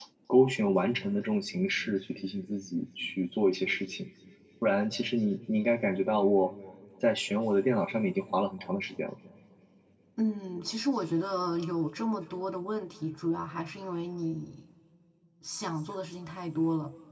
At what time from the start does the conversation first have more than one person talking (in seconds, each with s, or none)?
none